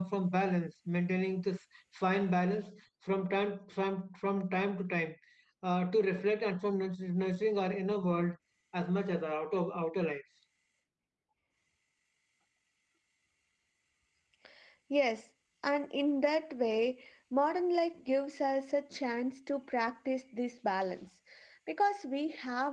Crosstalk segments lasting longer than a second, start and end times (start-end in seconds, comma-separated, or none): none